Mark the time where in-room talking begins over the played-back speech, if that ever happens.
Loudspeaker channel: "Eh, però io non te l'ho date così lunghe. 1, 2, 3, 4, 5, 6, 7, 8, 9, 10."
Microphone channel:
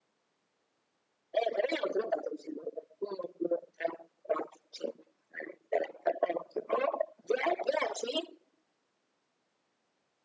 none

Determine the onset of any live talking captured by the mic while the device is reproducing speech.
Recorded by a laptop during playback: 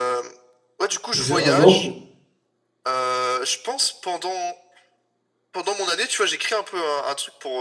1.2 s

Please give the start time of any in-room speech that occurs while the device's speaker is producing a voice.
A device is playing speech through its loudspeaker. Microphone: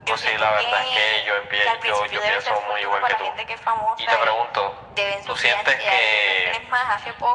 none

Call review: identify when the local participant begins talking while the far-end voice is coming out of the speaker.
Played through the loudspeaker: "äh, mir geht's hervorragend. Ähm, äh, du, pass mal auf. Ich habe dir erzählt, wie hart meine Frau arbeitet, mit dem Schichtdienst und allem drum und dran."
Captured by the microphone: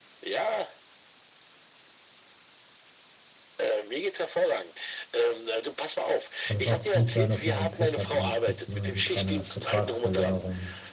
6.4 s

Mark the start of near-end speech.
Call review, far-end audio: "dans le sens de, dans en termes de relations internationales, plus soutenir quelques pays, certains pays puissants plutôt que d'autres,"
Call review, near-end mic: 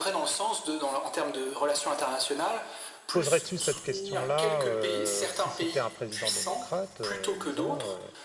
3.1 s

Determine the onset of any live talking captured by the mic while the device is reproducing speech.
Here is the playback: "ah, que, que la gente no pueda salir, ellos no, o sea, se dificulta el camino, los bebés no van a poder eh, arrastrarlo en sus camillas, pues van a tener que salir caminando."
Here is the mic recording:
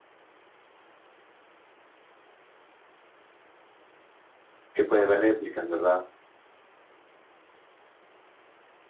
4.7 s

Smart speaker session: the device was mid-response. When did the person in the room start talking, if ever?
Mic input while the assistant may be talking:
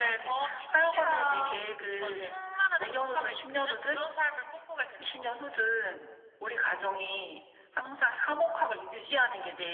none

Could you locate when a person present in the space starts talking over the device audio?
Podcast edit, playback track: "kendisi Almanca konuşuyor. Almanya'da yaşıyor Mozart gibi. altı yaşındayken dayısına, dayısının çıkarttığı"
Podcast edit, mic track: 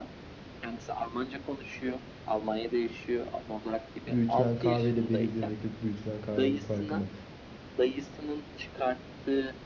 4.1 s

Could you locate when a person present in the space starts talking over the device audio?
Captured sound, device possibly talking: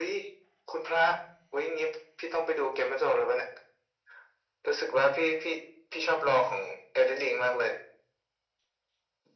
none

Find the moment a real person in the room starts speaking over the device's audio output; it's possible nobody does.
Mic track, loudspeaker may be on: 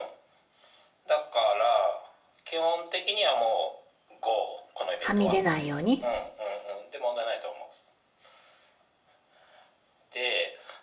5.0 s

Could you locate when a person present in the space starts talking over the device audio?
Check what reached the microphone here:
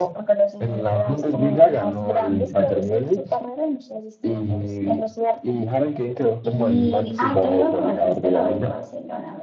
6.4 s

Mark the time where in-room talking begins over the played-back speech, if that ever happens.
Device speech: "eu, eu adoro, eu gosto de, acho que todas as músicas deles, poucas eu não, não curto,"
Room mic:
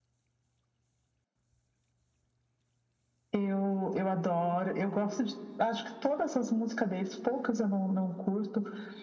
none

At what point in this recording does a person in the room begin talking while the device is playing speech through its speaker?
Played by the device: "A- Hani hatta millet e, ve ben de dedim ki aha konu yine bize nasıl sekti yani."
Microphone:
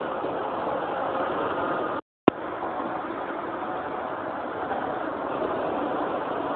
none

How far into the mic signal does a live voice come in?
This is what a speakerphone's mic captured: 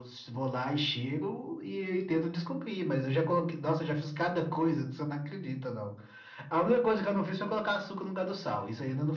none

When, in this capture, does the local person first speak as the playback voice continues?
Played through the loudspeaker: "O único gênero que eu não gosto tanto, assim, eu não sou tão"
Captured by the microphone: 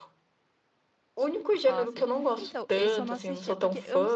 1.6 s

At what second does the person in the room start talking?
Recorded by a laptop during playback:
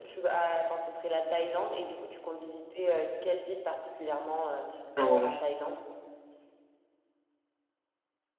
5.0 s

